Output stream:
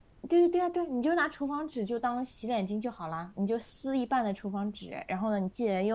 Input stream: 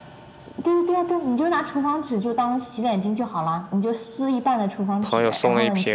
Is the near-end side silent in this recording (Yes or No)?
No